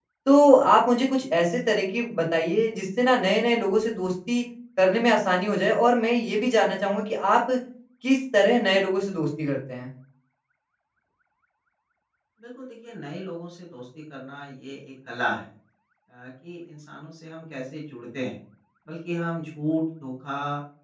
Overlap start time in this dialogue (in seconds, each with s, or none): none